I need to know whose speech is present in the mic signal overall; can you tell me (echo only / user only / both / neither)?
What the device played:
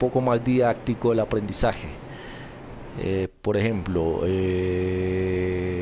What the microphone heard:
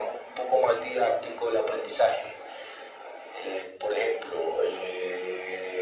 echo only